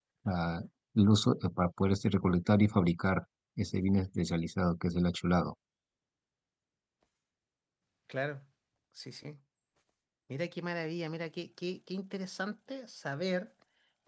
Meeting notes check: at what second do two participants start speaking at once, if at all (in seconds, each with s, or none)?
none